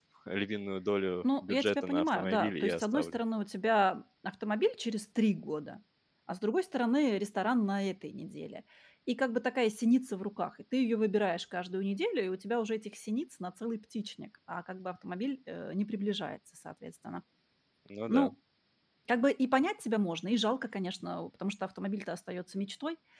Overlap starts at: 1.2 s

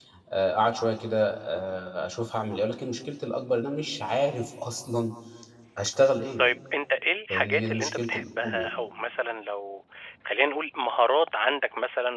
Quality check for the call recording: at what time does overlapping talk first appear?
7.3 s

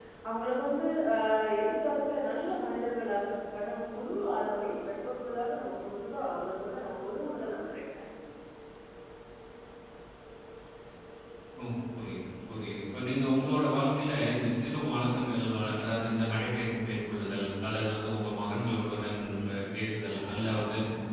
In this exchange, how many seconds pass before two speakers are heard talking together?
none

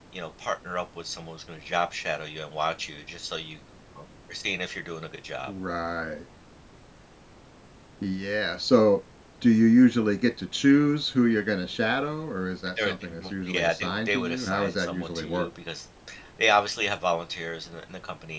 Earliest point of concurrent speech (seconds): 12.8 s

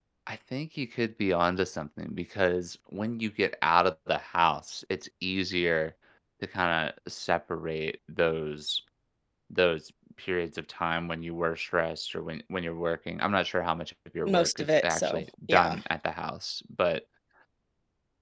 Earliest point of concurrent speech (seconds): 14.3 s

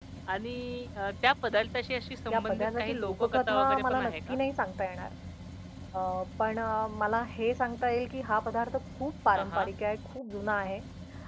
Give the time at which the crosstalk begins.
2.3 s

